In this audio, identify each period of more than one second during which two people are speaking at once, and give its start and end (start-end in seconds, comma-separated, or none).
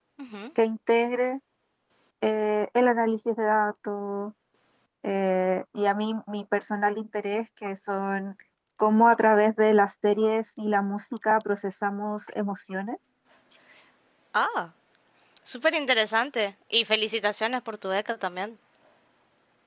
none